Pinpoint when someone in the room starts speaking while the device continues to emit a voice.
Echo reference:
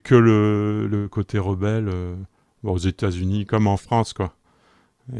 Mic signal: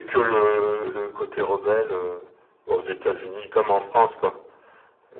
none

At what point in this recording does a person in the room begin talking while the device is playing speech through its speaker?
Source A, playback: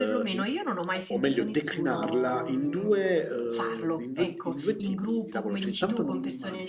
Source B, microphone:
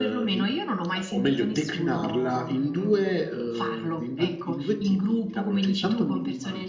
none

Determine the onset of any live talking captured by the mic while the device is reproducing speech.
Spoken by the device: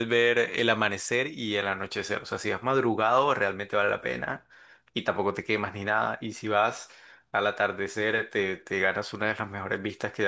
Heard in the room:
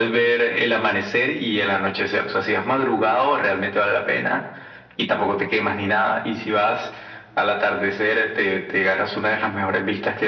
none

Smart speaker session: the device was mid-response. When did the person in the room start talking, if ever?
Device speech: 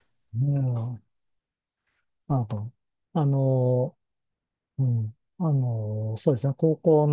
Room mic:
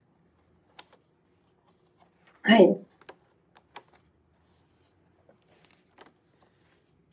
2.4 s

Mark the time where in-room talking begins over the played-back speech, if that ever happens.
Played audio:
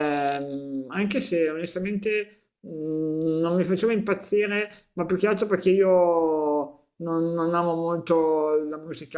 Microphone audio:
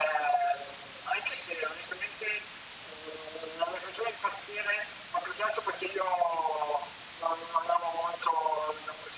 none

